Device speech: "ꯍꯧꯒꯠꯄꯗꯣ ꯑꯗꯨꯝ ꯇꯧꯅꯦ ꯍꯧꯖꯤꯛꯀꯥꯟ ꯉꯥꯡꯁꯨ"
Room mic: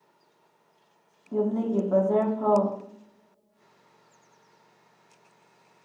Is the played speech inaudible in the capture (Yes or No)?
Yes